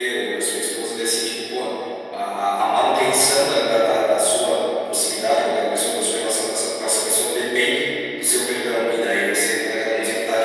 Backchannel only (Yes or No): Yes